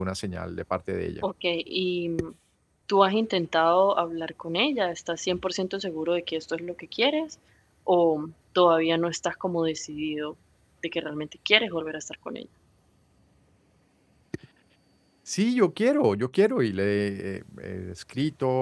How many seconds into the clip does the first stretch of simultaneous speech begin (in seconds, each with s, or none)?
none